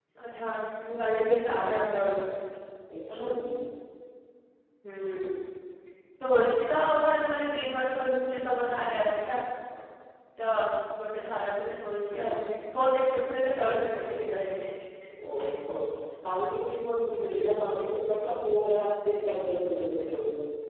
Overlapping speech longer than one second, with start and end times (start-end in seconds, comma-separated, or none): none